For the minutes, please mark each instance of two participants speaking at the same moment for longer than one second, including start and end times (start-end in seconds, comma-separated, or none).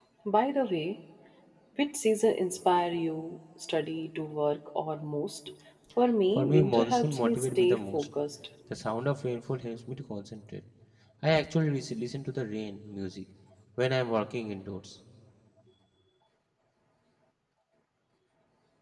6.3-8.1